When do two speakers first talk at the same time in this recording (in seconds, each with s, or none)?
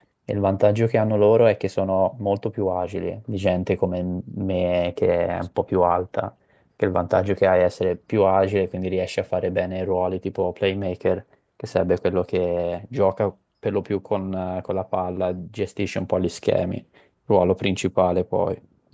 none